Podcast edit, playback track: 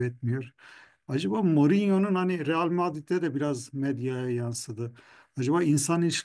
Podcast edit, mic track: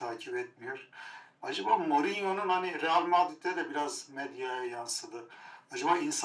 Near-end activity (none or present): none